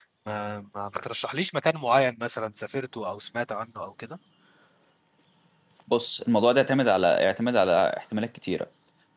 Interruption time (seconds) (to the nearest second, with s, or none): none